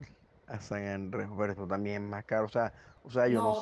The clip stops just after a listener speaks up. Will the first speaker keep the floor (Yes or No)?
No